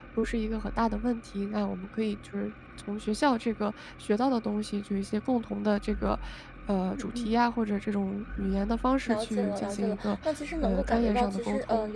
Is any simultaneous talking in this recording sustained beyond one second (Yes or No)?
Yes